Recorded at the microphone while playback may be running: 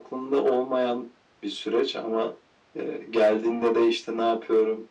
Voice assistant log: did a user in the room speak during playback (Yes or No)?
No